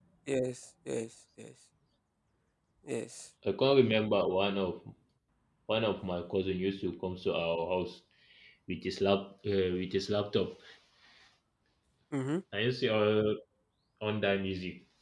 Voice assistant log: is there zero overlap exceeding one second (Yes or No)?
Yes